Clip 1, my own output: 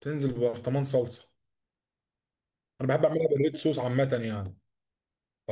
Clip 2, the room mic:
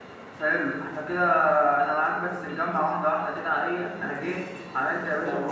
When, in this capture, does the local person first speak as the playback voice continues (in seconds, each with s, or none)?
0.3 s